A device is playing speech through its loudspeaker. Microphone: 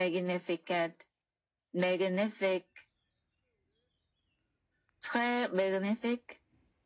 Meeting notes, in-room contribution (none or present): none